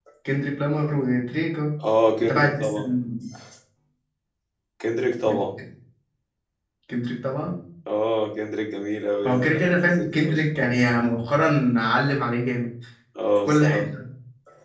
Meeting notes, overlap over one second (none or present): present